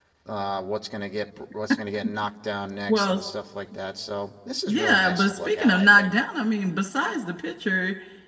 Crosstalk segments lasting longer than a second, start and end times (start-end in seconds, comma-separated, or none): 4.7-6.2